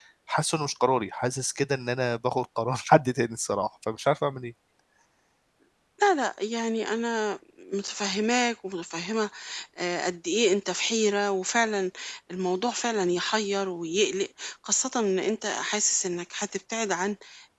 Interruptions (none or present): none